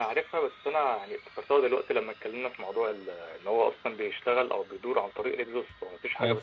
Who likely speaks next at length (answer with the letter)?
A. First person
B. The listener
B